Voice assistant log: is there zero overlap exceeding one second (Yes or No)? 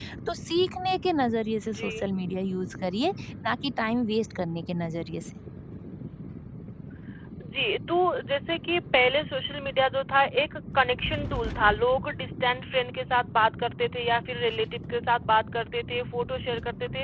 Yes